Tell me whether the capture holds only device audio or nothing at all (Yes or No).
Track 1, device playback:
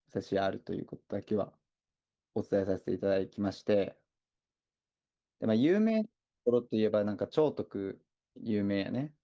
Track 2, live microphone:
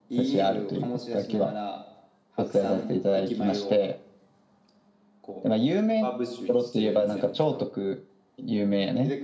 No